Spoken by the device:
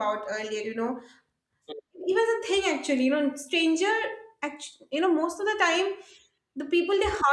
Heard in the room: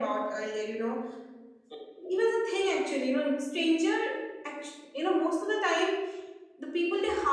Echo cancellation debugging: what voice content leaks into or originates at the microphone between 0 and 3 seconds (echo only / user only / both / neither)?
echo only